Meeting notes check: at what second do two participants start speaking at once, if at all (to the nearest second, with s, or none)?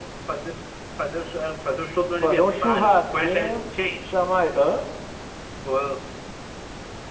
2 s